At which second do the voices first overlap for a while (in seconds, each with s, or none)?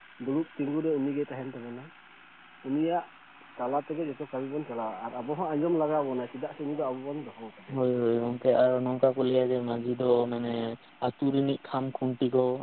none